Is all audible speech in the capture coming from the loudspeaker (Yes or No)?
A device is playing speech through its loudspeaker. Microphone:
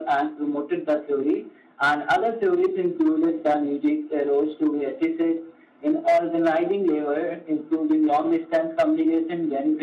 Yes